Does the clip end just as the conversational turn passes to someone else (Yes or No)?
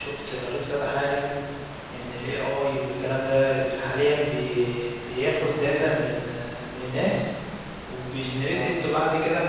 No